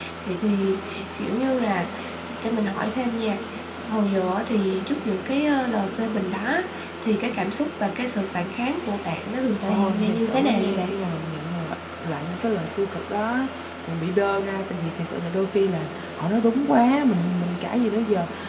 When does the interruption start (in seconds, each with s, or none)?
9.7 s